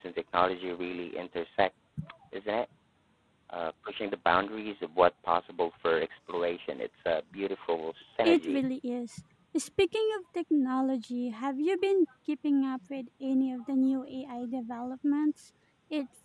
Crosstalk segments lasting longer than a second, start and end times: none

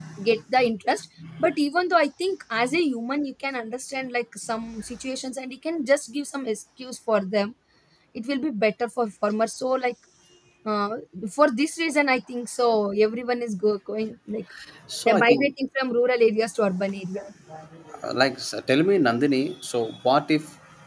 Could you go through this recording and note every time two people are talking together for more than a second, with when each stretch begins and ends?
none

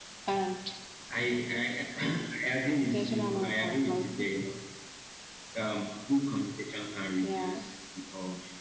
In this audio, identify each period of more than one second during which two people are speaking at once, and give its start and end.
2.8-4.3

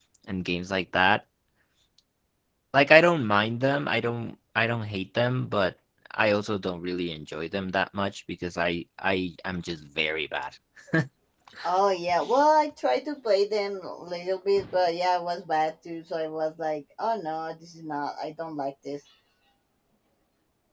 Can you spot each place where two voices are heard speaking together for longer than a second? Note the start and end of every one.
none

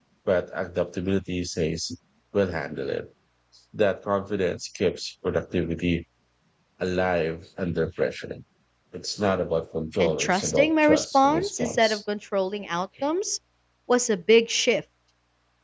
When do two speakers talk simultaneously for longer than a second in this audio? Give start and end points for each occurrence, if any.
10.0-12.0

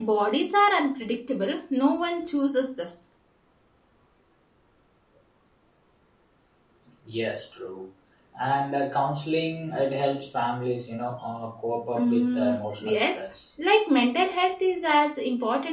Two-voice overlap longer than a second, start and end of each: 11.9-13.2

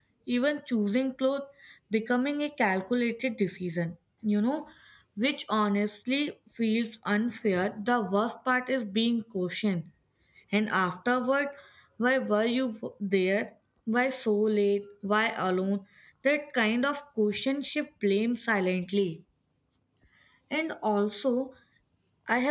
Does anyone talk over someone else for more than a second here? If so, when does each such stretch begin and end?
none

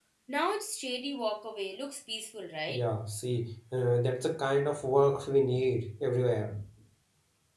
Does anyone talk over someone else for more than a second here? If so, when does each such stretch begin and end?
none

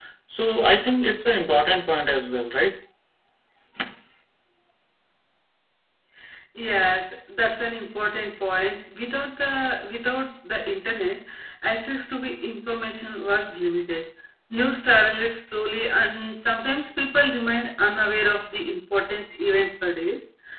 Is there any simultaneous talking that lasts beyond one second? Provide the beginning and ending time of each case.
none

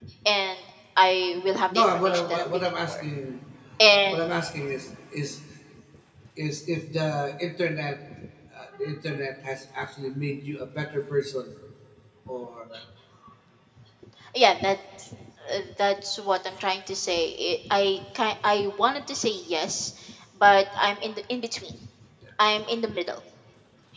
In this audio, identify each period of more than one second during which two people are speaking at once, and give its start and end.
1.8-3.0

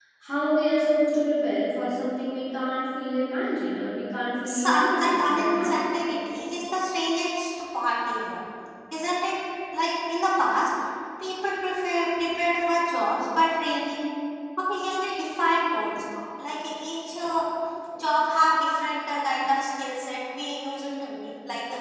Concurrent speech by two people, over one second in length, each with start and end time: 4.5-5.8

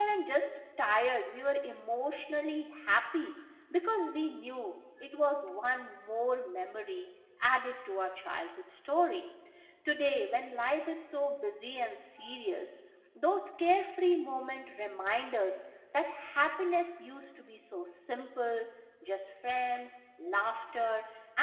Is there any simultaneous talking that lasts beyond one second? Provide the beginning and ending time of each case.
none

